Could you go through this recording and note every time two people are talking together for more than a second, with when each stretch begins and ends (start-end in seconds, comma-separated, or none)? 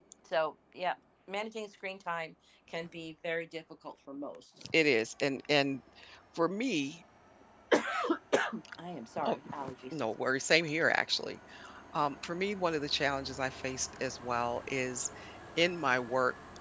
none